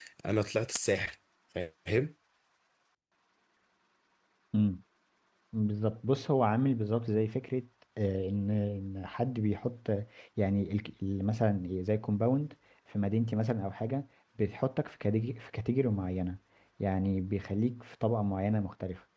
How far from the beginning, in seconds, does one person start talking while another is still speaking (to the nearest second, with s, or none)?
none